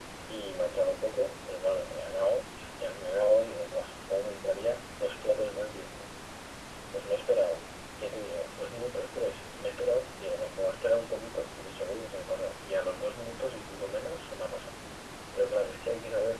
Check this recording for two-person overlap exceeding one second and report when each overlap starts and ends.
none

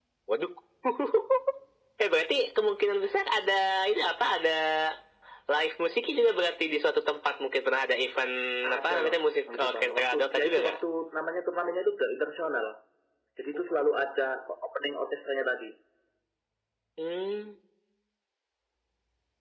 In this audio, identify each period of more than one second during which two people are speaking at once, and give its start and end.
9.6-10.8

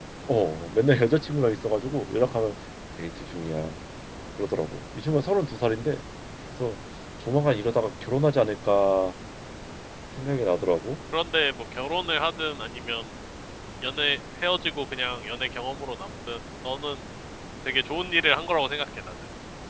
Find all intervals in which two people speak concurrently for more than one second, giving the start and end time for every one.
none

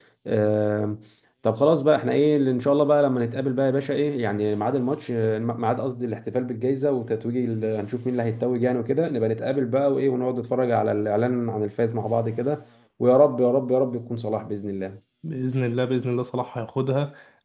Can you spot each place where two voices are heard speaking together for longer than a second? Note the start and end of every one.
none

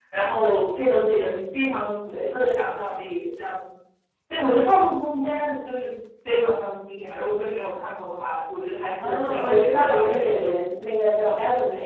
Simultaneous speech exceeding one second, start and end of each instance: 9.0-10.5

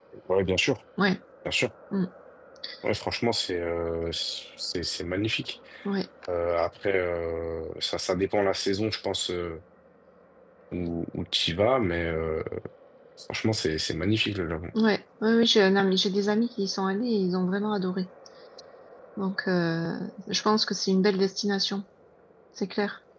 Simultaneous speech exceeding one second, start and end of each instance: none

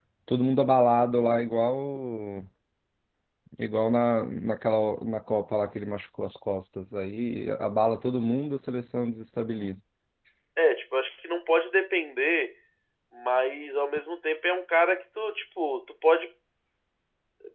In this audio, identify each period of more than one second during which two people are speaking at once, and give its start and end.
none

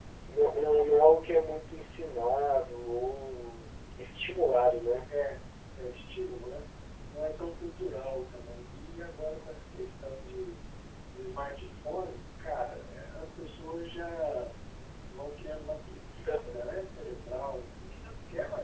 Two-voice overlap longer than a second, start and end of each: none

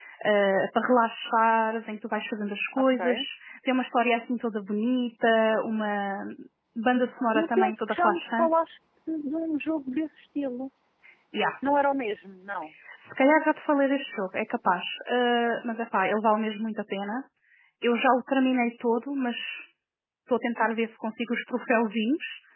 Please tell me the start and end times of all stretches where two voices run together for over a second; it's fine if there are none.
7.3-8.6

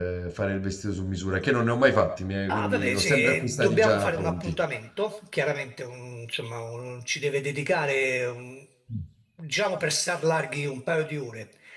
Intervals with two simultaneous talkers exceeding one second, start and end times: 2.5-4.5

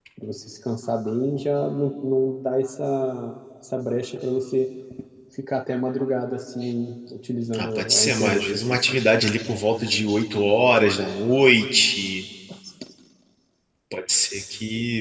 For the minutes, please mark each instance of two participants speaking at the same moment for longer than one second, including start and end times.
7.5-9.0

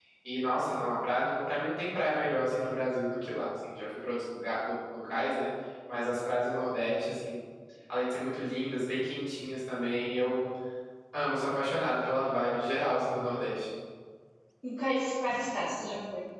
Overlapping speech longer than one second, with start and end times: none

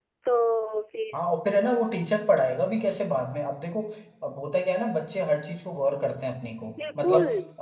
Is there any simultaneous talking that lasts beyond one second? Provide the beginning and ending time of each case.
none

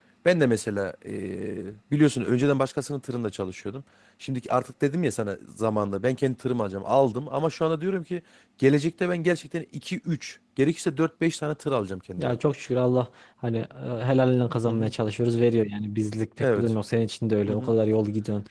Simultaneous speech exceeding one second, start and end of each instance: none

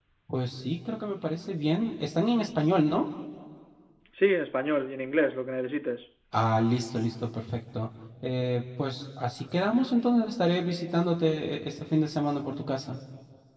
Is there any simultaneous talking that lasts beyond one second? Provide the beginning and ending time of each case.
none

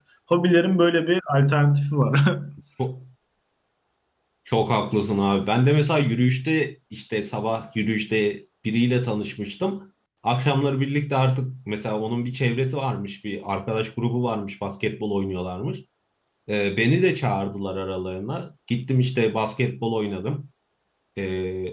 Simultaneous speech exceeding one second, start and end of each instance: none

